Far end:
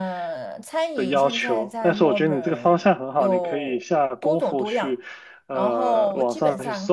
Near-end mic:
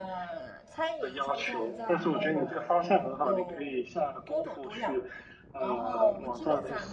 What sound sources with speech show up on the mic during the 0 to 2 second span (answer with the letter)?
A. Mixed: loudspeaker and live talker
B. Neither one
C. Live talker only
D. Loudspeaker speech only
D